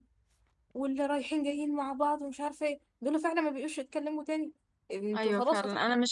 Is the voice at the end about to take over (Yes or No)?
Yes